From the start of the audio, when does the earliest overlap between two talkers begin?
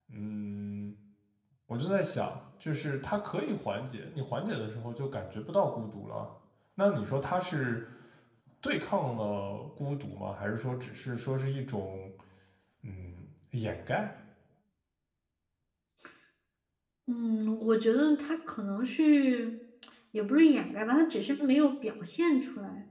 none

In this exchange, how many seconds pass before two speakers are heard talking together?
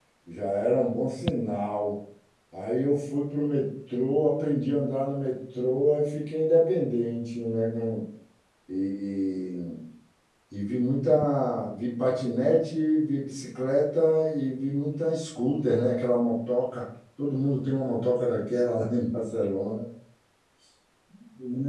none

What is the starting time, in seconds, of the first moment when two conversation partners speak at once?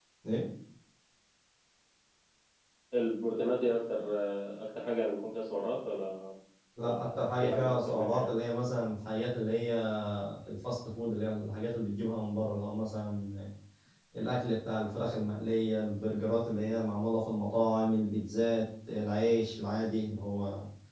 6.8 s

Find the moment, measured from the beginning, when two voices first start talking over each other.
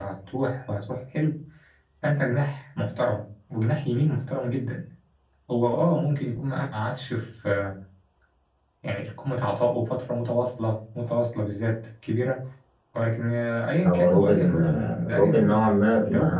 13.8 s

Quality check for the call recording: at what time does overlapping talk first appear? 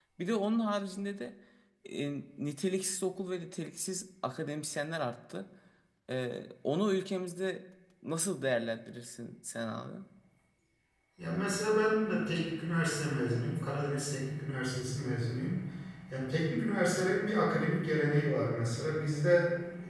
none

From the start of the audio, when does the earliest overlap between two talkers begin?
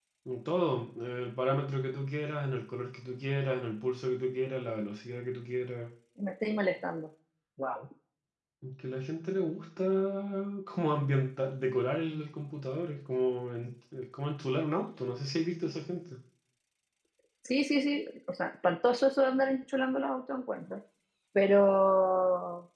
none

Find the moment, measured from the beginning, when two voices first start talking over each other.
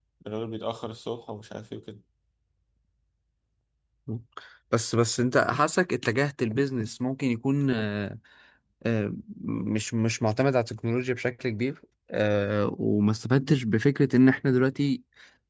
none

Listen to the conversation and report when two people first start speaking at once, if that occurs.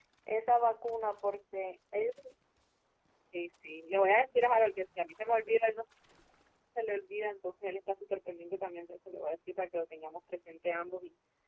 none

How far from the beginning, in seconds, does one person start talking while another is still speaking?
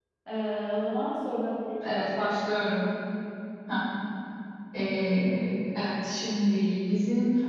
none

